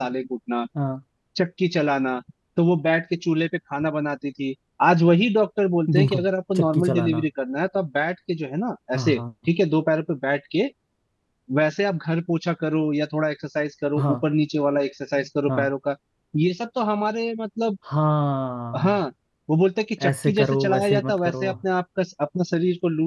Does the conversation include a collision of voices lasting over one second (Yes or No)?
Yes